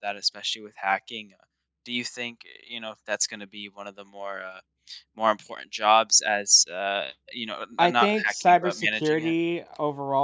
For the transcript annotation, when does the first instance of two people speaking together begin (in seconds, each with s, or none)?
7.8 s